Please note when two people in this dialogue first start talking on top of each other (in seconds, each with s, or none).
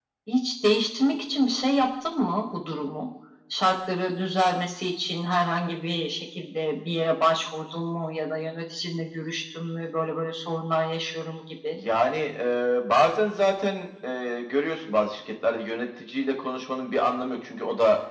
none